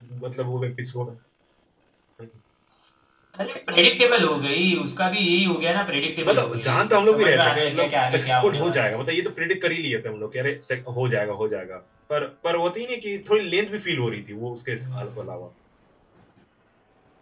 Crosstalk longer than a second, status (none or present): present